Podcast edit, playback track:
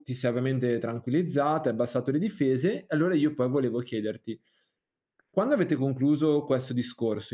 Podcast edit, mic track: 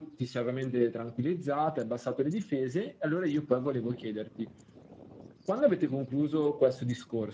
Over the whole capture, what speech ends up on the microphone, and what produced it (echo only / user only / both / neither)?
echo only